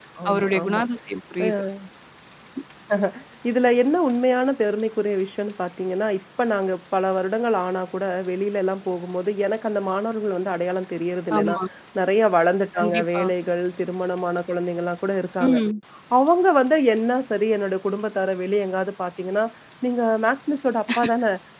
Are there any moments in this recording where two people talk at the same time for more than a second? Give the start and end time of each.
none

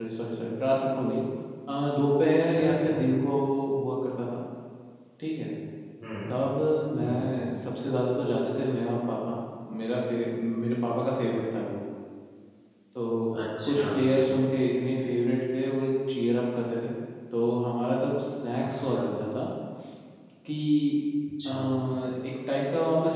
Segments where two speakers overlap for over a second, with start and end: none

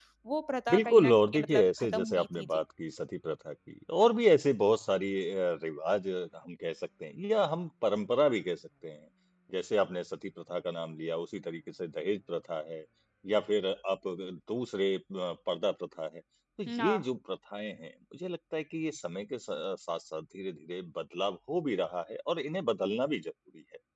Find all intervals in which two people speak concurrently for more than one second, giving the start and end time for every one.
0.7-2.6

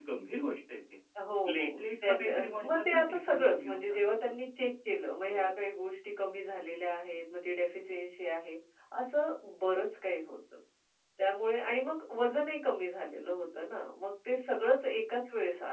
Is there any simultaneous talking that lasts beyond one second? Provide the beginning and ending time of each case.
1.4-4.3

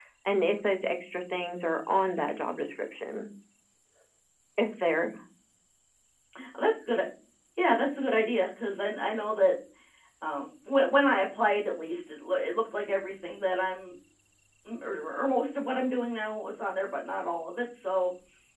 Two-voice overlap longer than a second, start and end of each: none

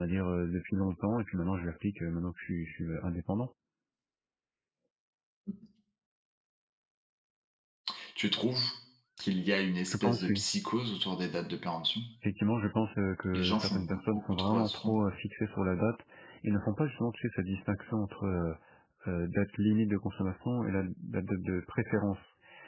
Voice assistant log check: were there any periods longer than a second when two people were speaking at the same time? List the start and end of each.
13.3-14.9

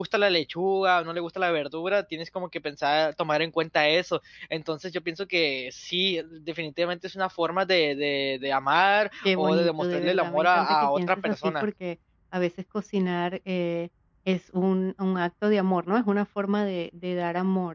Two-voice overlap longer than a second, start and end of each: 9.2-11.7

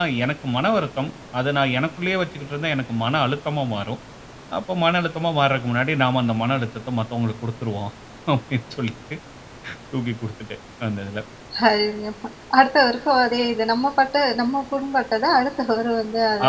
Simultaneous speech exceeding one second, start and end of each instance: none

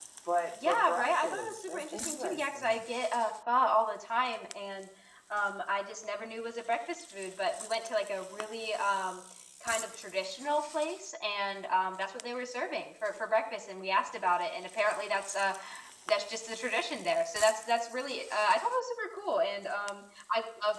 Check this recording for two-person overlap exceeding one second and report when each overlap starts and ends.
0.7-2.8

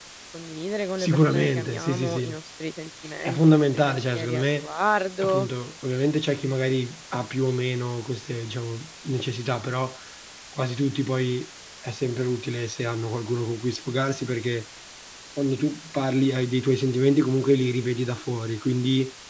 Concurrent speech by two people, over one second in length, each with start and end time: 1.0-2.4, 3.2-4.7

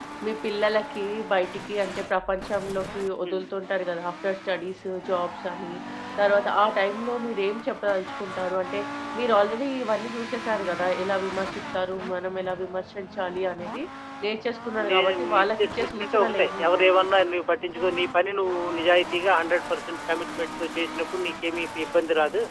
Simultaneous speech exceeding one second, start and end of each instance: 14.9-16.9

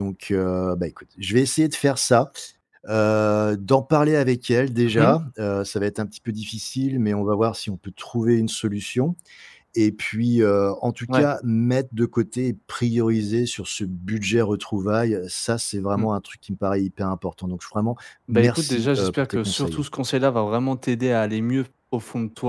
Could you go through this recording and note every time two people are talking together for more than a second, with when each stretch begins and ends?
18.3-19.8

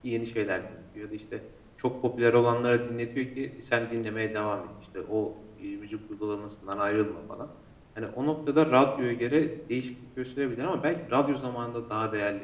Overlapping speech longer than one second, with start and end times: none

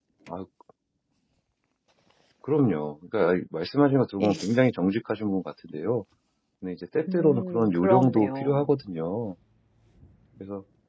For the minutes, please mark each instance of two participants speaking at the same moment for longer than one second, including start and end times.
7.1-8.6

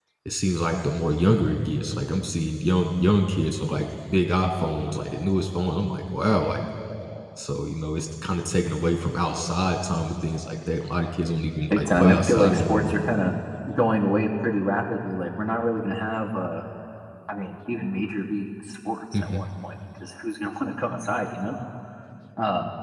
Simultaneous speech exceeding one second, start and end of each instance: 11.7-12.9

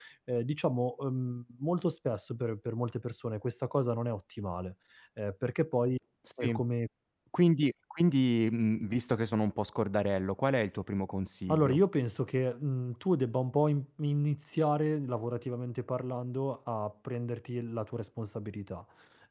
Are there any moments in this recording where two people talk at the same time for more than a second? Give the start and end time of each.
none

